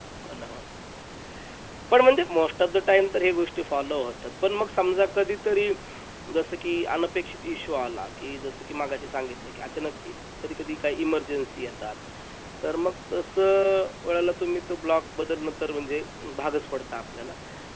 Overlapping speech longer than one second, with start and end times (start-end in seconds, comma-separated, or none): none